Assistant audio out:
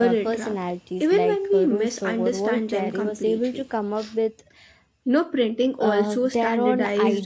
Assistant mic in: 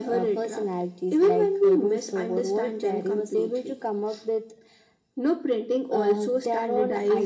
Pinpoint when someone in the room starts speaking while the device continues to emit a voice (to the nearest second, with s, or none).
none